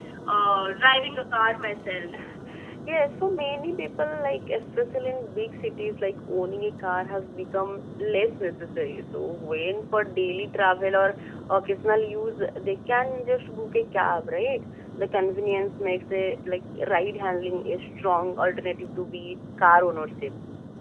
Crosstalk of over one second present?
No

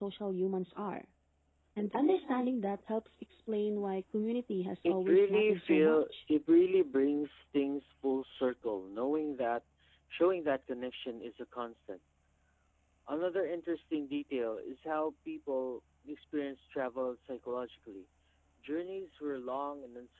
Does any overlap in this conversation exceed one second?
Yes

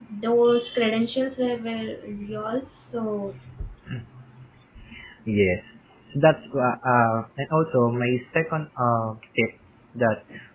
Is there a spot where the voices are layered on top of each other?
No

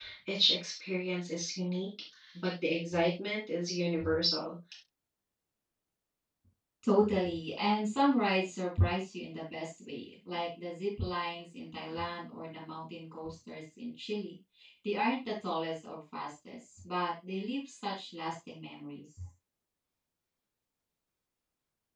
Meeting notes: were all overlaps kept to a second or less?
Yes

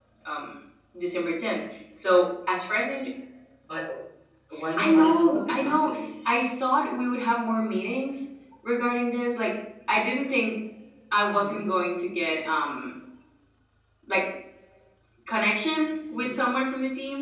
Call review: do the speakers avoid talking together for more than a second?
No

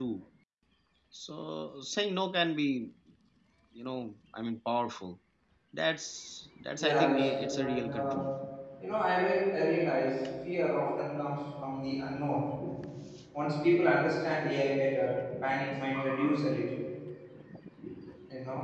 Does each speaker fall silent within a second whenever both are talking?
No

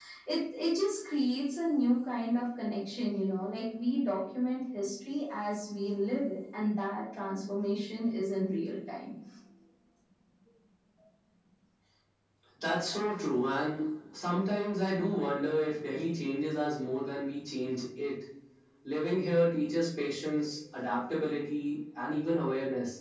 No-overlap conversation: Yes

